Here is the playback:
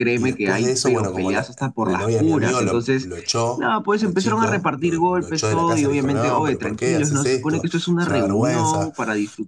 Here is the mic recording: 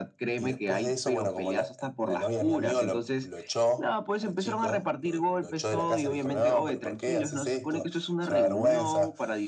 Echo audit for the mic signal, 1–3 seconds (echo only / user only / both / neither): echo only